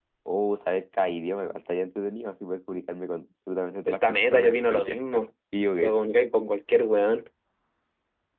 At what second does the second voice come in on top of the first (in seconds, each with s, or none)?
3.9 s